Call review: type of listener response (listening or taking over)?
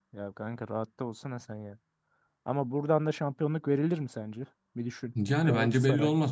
taking over